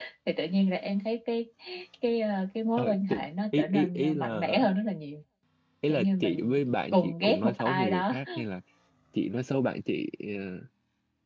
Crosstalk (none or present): present